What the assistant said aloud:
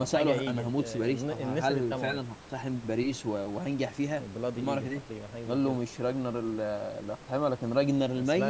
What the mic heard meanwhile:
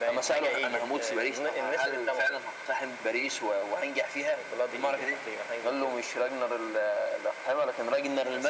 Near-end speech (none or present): none